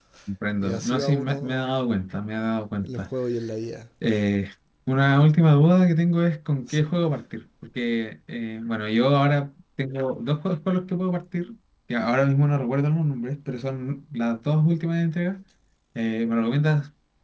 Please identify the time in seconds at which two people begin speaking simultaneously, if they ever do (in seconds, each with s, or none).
0.6 s